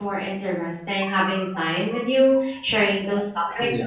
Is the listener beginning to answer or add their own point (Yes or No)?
No